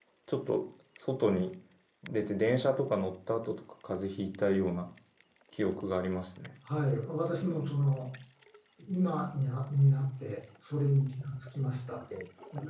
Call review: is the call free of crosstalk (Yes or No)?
Yes